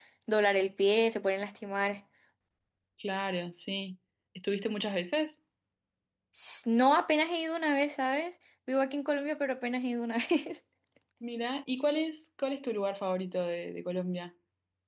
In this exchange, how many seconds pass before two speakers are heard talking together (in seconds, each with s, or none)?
none